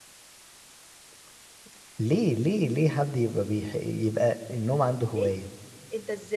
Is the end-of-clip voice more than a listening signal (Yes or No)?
Yes